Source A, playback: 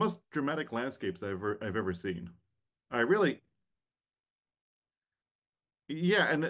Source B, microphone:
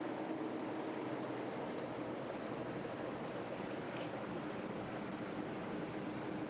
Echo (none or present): none